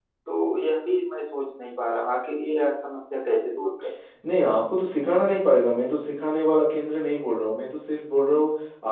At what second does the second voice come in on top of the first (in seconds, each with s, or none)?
none